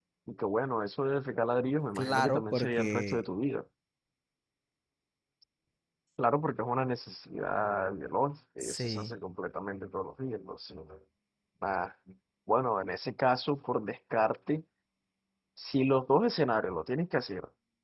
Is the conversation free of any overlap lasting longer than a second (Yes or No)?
No